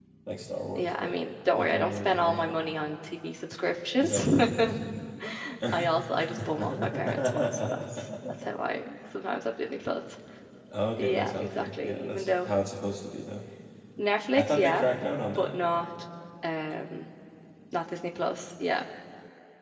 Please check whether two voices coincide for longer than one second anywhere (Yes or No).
Yes